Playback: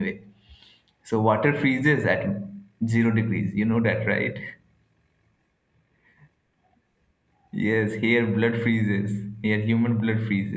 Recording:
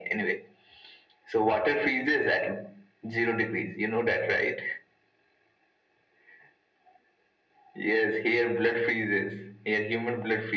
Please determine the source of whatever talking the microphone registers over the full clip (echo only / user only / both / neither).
echo only